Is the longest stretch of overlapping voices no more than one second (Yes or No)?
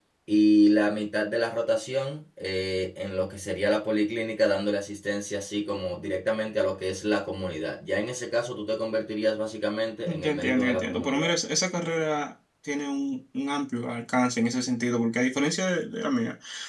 No